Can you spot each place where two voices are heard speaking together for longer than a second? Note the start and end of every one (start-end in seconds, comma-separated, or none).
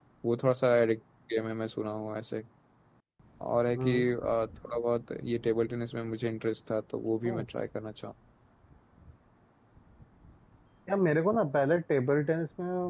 none